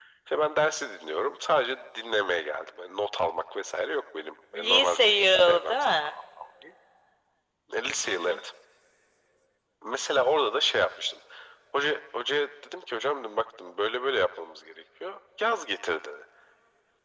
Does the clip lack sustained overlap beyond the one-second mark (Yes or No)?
No